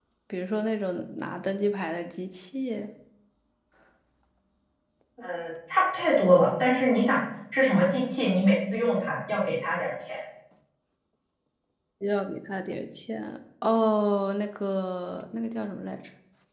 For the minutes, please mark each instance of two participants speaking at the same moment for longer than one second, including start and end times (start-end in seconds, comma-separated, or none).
none